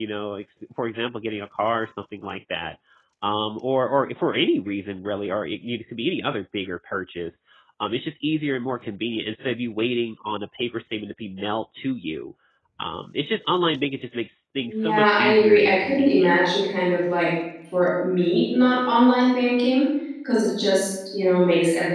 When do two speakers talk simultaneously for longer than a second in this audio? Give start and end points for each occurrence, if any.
14.6-16.3

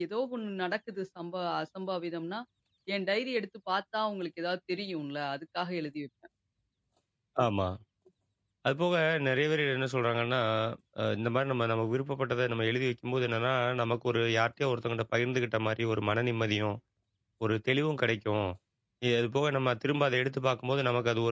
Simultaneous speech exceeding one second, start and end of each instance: none

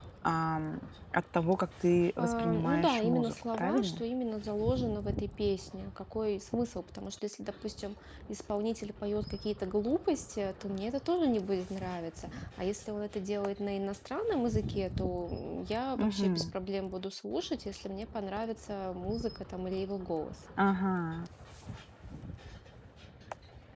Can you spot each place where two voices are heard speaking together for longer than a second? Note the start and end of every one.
2.2-4.0

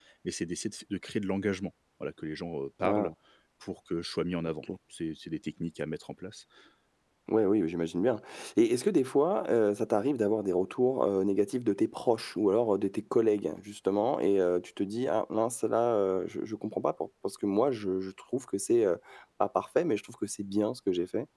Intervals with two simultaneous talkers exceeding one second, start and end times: none

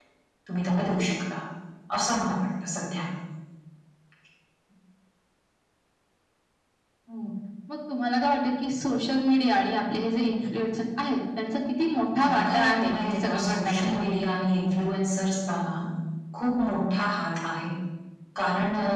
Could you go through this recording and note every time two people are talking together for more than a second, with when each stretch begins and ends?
12.2-14.0

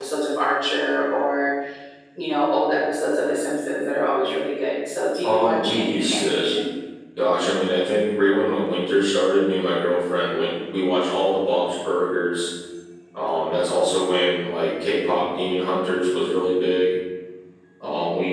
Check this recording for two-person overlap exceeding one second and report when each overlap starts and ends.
5.2-6.5

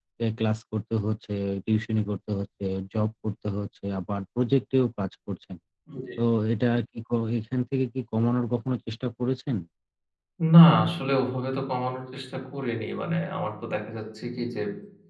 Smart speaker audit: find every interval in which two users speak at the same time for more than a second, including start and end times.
none

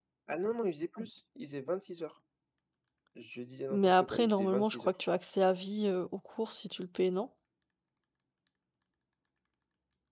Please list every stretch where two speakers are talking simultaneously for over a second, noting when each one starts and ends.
3.7-4.9

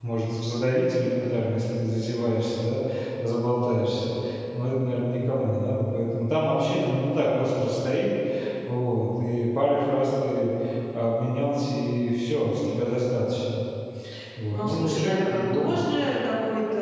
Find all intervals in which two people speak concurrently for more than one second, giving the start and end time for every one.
14.5-15.8

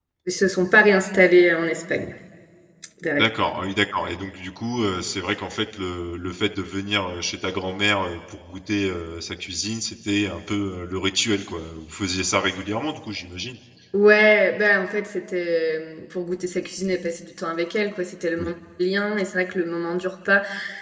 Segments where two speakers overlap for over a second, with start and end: none

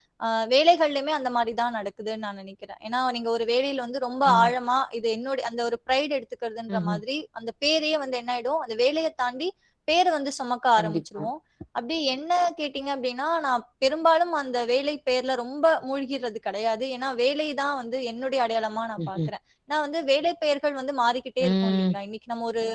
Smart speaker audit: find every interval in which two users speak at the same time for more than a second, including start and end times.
none

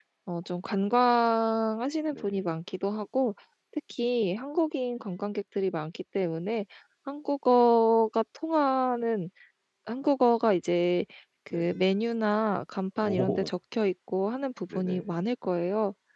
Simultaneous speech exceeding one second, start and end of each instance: none

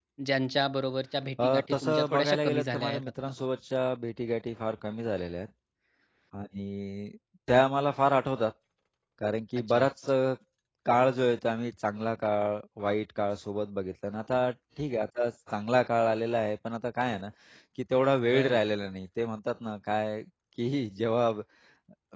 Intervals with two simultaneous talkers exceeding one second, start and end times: 1.4-3.1

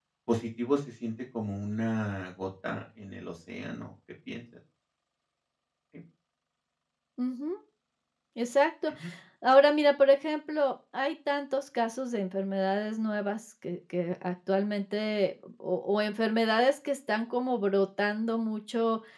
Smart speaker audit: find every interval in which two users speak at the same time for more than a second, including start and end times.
none

